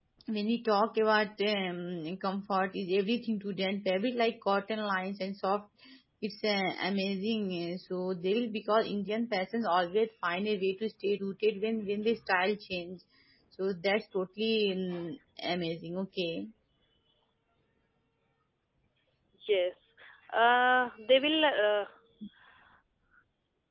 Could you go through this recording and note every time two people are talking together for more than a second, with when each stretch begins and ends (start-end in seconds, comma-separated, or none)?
none